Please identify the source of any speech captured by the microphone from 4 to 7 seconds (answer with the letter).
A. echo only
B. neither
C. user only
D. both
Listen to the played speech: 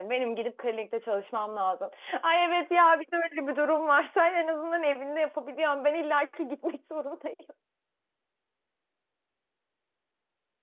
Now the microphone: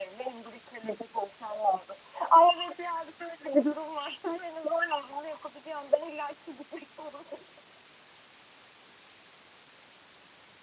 A